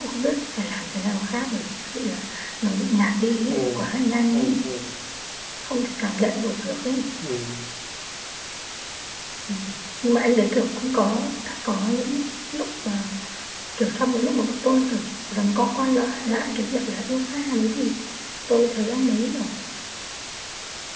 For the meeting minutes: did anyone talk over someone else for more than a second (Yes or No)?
No